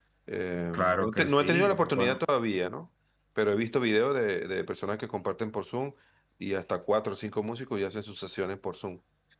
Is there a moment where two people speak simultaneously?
Yes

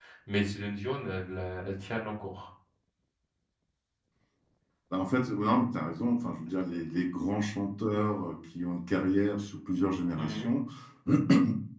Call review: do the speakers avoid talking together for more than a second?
Yes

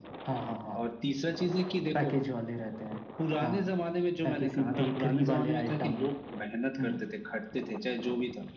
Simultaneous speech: Yes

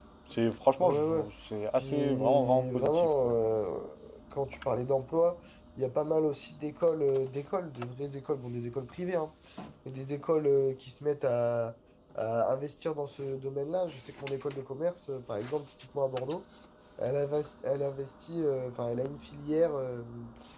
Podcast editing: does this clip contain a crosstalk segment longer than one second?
Yes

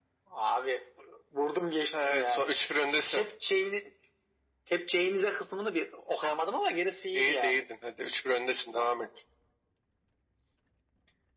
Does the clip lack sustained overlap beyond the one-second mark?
Yes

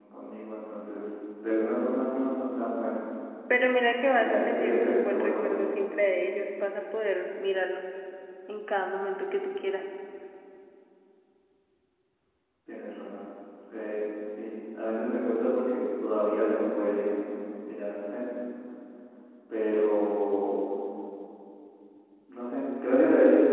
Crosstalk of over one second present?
Yes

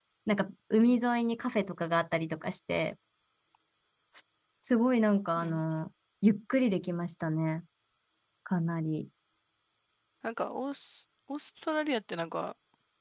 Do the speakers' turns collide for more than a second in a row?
No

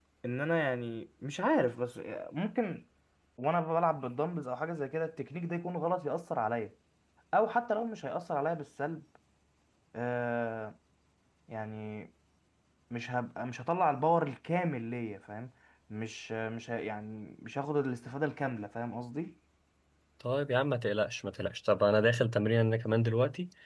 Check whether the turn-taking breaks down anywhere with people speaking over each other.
No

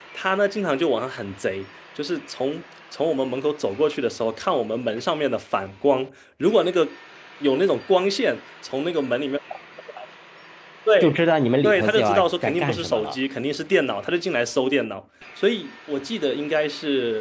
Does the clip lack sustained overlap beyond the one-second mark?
No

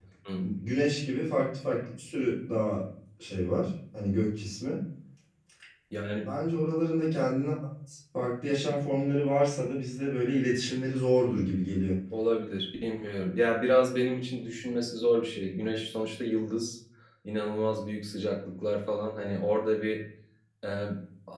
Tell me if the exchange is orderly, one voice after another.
Yes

